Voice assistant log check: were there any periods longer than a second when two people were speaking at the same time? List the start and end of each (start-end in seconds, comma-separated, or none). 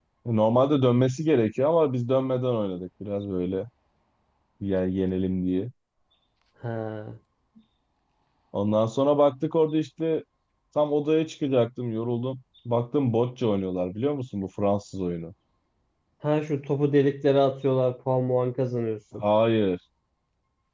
none